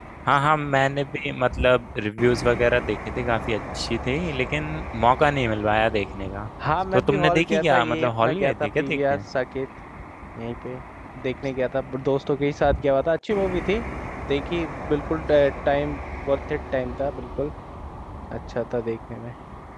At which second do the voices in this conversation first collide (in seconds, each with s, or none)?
6.9 s